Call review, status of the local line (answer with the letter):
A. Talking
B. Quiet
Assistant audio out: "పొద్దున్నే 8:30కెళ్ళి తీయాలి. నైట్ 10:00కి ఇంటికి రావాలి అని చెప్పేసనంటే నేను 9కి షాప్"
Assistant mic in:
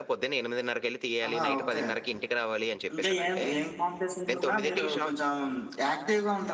A